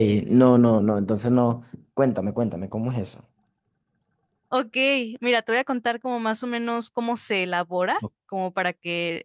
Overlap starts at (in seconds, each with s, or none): none